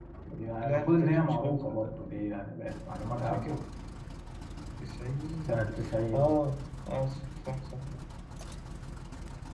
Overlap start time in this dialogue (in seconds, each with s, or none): 0.6 s